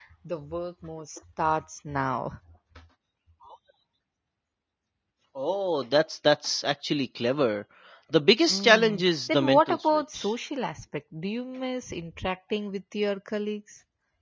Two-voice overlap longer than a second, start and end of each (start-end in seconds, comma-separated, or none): 8.5-10.3